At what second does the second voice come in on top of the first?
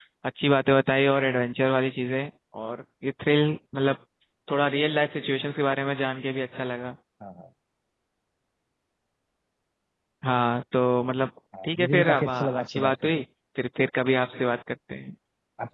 12 s

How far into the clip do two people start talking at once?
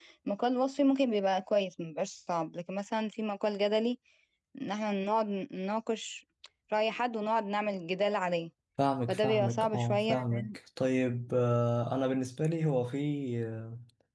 9 s

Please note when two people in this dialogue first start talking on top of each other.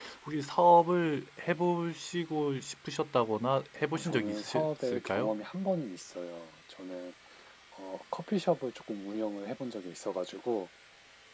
4 s

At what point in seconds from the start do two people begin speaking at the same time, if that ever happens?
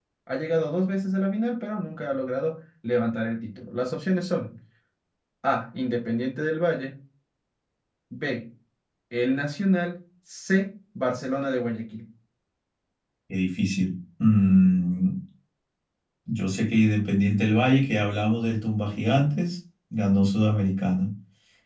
none

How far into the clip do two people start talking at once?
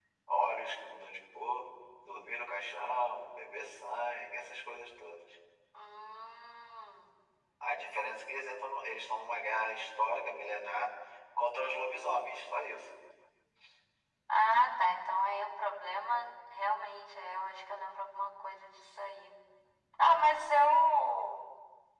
none

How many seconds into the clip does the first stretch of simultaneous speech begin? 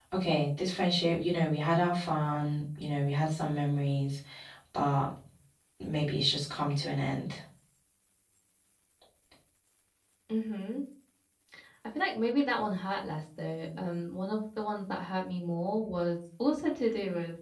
none

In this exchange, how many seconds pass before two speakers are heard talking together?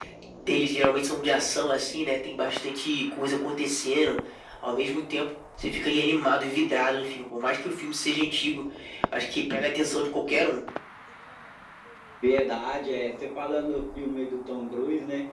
none

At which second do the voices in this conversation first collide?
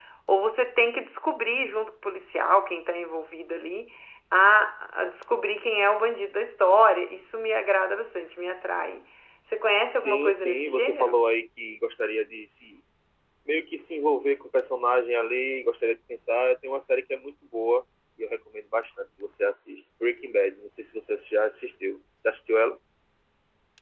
10 s

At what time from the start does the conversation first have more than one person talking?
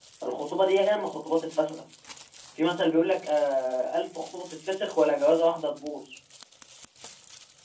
none

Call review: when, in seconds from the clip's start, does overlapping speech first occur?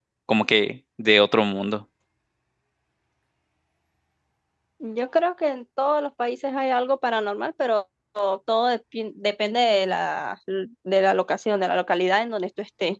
none

